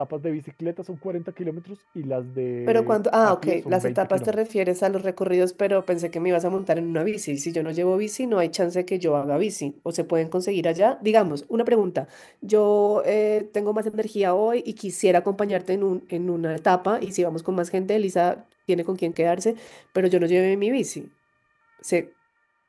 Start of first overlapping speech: 3 s

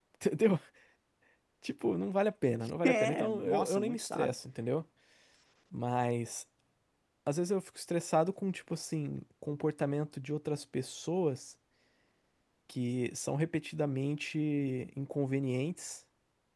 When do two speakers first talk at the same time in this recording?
3 s

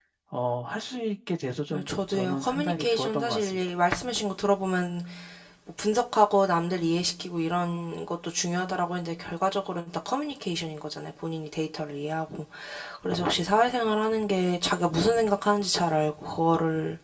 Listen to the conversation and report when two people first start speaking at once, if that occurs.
2 s

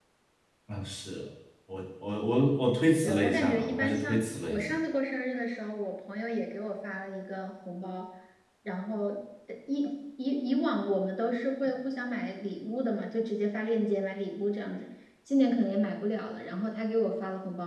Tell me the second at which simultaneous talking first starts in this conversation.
3 s

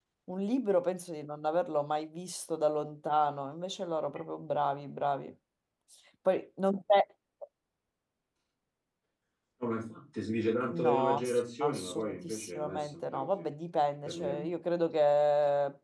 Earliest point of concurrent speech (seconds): 11 s

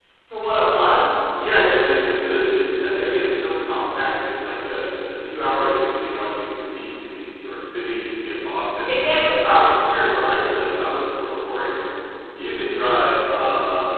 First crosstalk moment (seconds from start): none

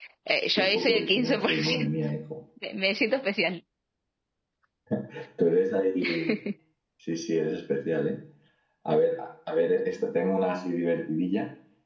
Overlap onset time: 1 s

